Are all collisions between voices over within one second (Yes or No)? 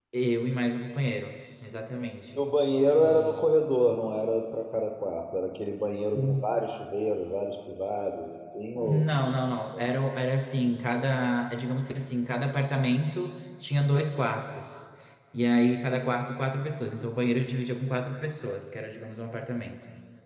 Yes